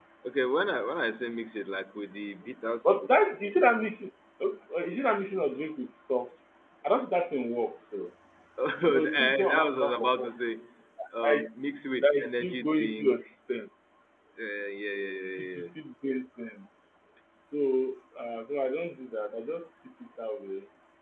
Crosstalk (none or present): present